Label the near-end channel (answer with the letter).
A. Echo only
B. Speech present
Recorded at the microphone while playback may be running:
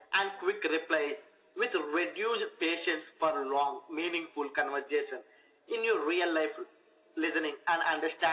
A